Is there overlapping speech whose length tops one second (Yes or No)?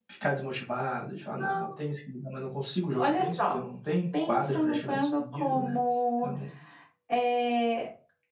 Yes